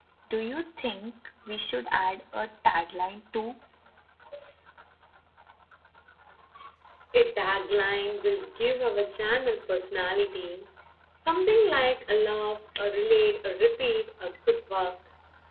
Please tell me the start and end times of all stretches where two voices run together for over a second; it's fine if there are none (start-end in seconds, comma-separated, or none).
none